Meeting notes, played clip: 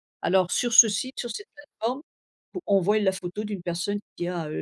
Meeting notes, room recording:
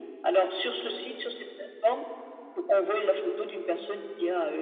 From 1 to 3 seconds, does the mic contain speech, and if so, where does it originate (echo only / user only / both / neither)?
echo only